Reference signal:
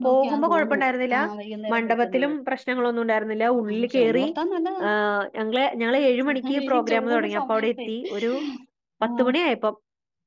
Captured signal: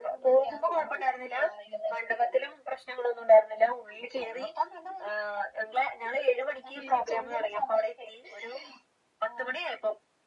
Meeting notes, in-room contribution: none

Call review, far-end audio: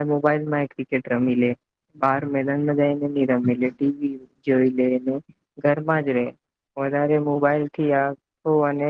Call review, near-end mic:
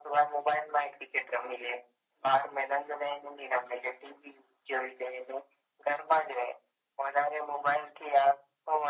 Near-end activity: none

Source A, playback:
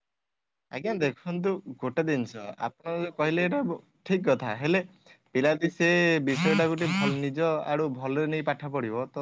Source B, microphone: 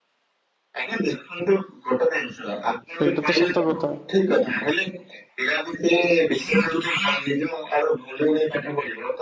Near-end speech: present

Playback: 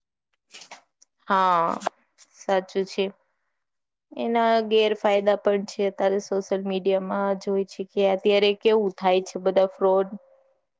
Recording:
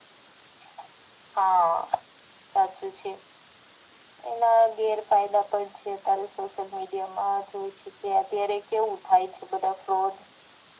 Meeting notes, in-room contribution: none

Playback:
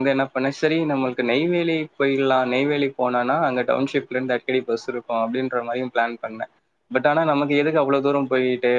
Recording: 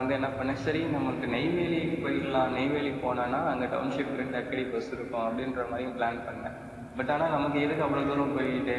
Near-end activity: none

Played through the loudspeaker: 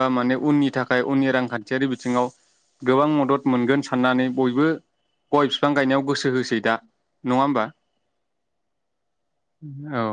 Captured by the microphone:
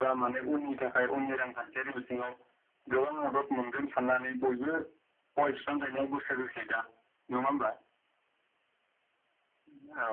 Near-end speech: none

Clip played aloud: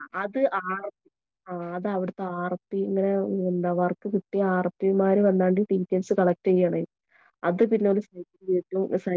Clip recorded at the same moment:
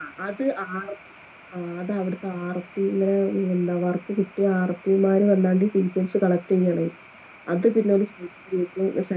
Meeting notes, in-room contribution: none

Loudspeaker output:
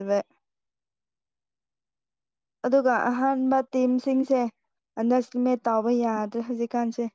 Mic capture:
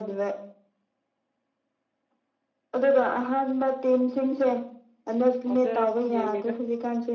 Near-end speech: present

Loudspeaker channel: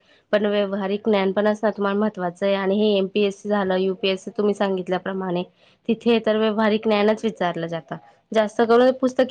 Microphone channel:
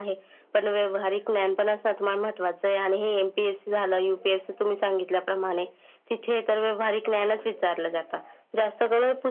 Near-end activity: none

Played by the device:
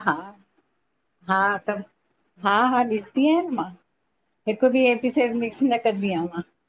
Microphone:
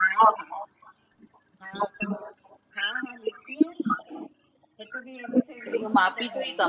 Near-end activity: present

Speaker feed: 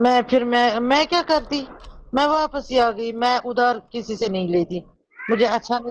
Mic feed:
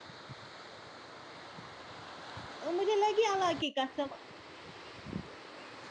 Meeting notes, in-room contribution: present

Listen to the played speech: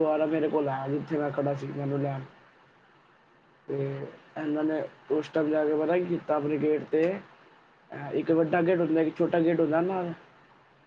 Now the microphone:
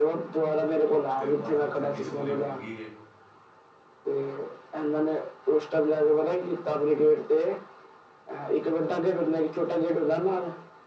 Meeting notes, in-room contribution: present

